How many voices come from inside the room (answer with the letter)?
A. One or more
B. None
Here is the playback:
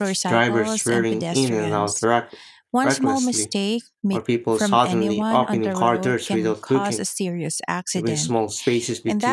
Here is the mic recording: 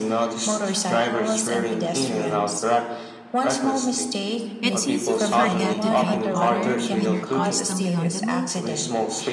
A